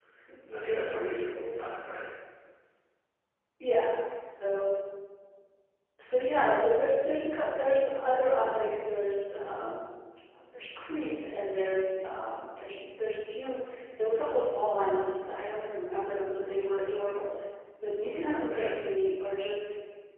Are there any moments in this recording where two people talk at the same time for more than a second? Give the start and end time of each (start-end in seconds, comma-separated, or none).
none